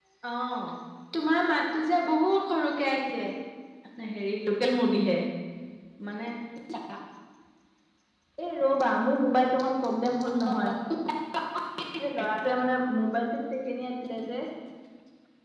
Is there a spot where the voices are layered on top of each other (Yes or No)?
No